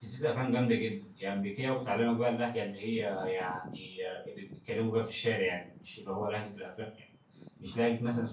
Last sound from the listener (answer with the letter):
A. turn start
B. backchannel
B